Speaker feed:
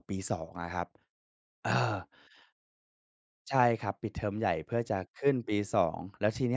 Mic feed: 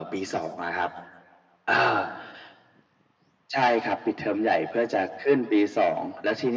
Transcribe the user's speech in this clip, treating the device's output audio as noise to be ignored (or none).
none